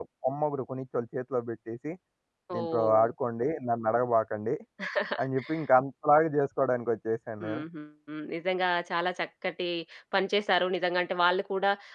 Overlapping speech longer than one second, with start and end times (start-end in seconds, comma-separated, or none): none